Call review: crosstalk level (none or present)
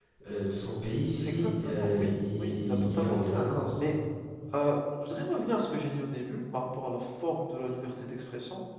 present